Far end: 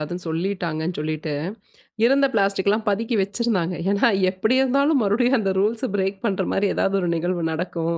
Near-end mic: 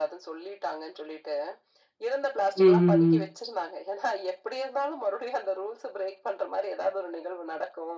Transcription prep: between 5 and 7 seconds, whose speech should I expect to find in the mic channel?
echo only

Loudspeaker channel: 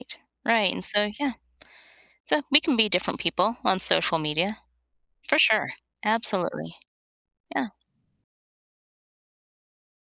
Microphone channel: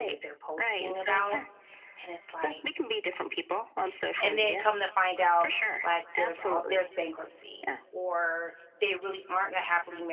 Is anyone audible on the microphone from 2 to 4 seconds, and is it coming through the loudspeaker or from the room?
both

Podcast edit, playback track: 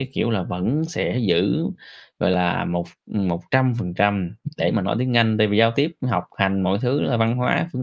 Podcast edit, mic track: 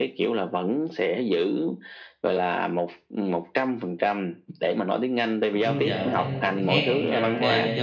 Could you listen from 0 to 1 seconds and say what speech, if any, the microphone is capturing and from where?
echo only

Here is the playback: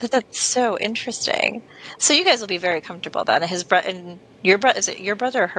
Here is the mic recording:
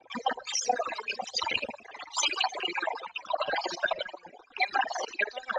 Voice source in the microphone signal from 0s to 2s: echo only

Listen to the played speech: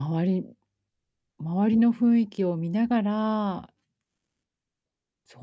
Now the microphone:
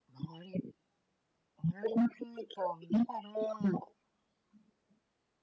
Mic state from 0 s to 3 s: echo only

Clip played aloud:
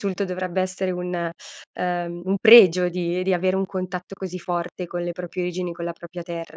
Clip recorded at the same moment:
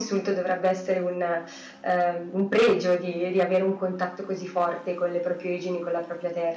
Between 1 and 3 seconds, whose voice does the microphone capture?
echo only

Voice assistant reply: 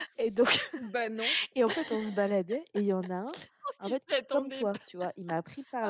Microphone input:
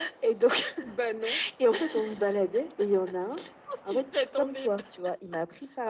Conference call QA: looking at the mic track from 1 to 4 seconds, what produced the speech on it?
echo only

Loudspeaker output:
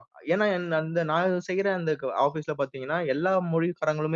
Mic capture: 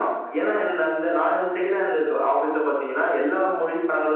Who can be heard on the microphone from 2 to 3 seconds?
echo only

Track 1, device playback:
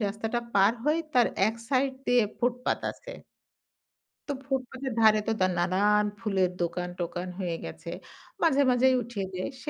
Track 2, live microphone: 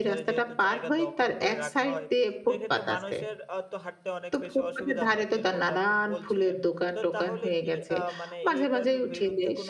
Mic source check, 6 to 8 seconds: both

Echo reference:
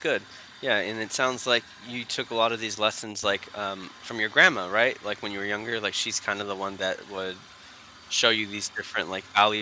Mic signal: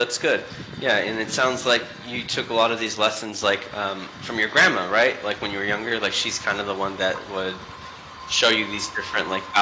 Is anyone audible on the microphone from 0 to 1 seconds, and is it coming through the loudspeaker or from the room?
echo only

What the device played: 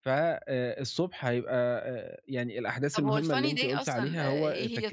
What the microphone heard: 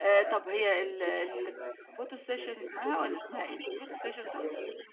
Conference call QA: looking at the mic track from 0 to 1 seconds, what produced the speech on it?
both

